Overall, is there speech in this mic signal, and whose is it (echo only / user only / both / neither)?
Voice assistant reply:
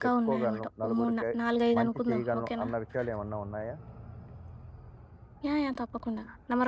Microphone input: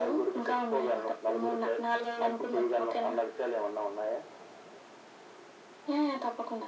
echo only